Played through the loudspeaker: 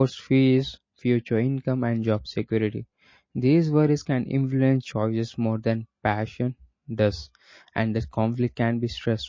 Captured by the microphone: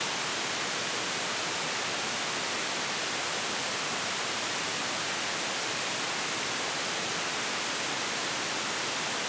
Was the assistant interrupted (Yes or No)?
No